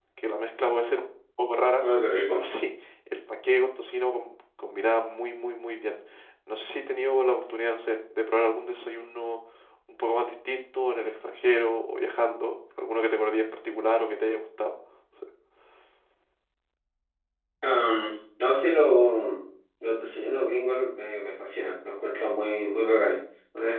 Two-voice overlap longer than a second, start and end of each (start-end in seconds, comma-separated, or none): none